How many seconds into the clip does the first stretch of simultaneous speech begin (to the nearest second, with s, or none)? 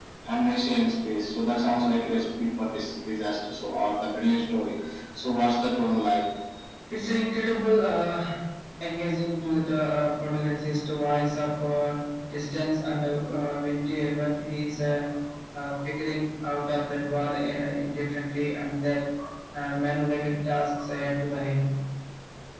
none